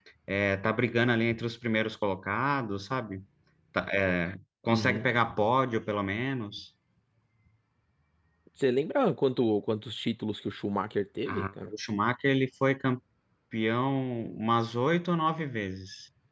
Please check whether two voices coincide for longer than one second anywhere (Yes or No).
No